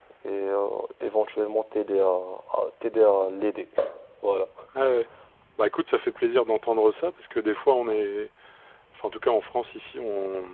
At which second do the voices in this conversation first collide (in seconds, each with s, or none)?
none